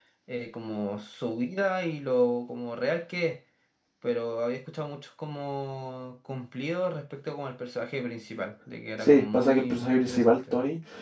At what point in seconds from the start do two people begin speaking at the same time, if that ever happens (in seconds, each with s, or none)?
9.0 s